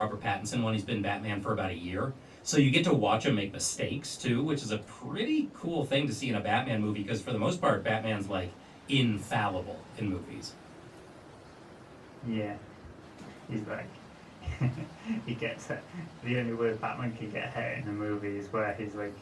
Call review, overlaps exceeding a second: none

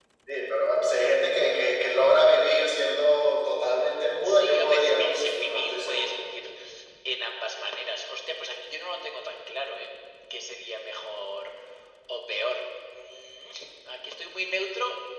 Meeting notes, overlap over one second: present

